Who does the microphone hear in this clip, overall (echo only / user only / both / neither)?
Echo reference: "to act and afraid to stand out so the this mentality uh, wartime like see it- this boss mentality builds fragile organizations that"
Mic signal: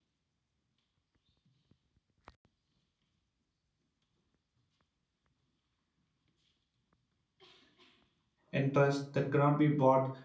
user only